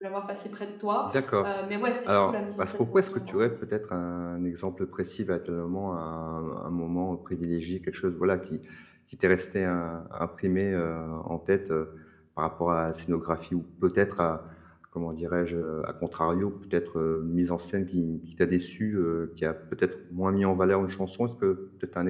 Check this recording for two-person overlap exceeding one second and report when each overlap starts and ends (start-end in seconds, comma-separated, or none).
2.1-3.3